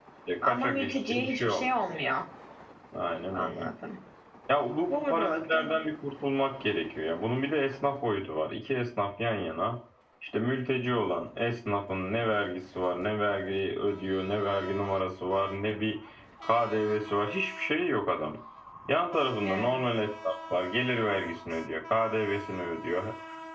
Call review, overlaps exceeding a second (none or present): present